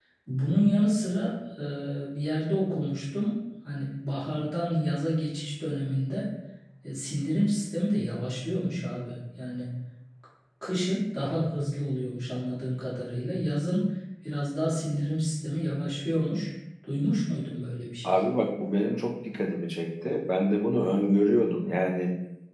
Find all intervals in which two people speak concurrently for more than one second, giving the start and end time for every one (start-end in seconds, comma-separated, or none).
none